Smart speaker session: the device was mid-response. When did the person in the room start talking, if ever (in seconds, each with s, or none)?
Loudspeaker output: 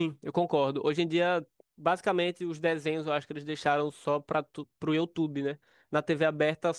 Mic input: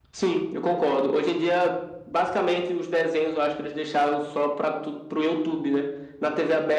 none